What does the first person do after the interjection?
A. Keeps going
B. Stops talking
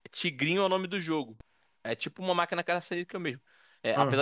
A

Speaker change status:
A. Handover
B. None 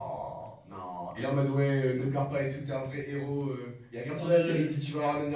B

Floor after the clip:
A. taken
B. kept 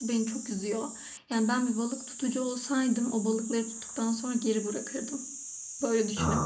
A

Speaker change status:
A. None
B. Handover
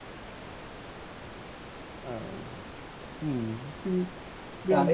B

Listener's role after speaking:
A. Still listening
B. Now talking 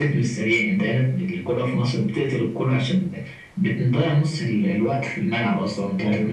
B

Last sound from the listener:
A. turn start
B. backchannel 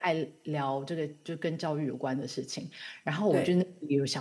B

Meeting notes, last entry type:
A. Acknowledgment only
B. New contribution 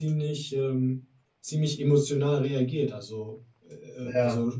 A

